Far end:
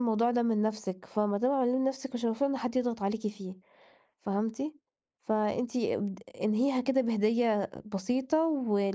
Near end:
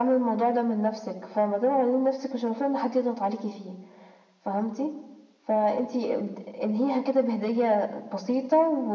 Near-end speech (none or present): none